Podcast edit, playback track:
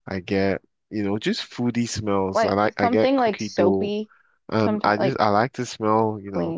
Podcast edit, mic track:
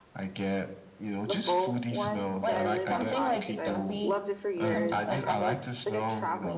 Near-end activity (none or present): present